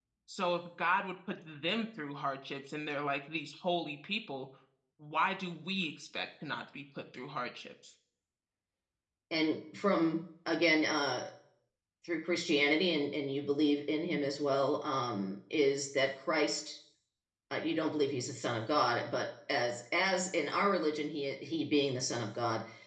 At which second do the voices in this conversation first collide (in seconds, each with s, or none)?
none